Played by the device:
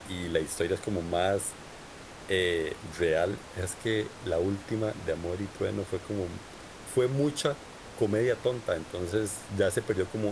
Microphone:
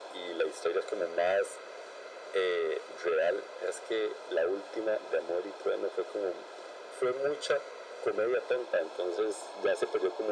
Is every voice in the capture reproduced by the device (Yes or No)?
Yes